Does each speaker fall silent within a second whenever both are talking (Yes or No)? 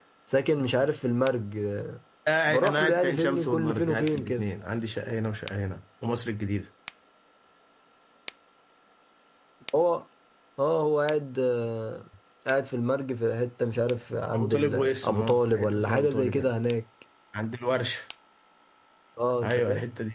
No